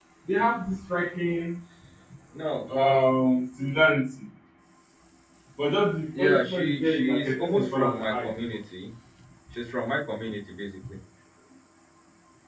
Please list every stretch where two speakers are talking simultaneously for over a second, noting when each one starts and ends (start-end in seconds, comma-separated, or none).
6.2-8.6